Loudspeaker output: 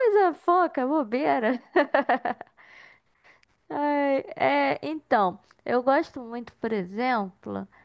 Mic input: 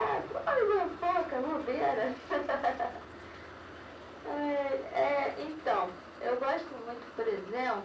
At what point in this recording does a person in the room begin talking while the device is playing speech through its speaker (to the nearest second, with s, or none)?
none